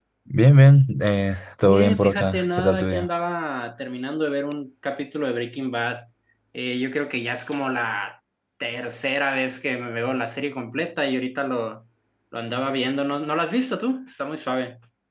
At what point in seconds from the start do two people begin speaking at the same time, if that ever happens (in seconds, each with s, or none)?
1.6 s